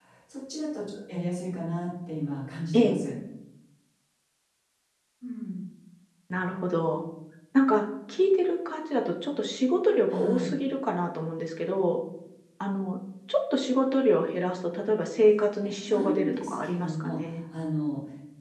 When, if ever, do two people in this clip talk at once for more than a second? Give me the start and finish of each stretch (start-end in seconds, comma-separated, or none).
15.8-17.3